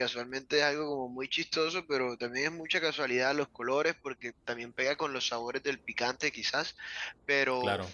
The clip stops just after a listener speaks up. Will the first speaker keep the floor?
Yes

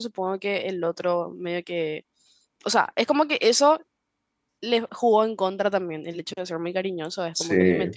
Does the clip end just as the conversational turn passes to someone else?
No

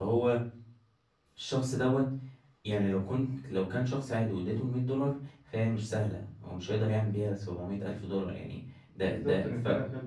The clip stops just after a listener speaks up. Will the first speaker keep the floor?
No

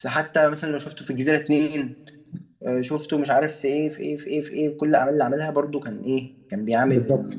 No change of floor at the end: Yes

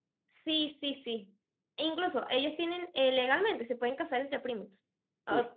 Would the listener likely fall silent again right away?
Yes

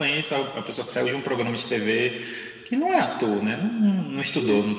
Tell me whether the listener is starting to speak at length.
No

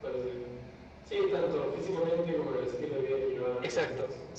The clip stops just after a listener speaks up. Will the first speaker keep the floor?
No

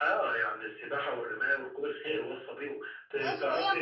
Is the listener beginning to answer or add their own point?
Yes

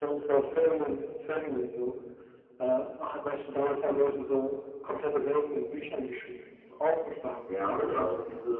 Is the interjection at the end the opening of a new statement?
Yes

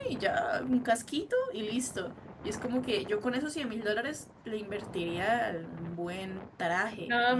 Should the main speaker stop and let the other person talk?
Yes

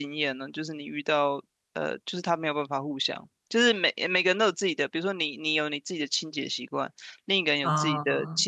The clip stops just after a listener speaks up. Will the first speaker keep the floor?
Yes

